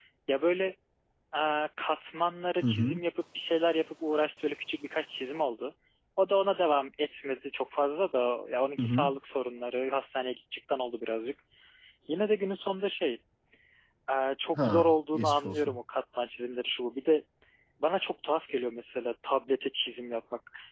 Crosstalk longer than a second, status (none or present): present